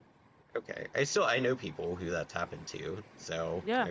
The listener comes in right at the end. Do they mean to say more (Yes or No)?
Yes